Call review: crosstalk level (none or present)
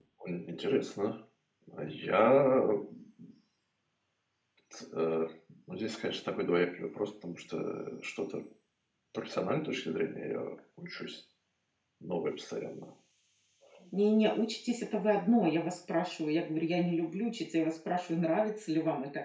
none